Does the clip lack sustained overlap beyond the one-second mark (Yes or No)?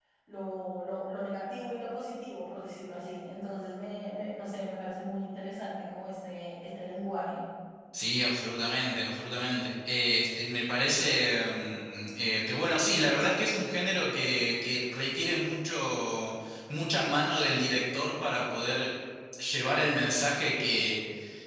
Yes